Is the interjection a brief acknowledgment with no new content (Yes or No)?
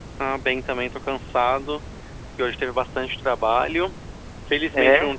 Yes